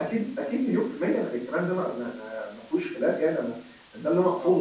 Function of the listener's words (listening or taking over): listening